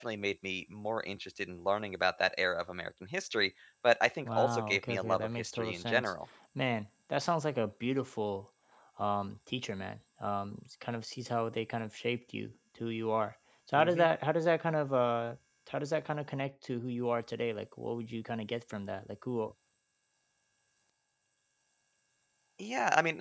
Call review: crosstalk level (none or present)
present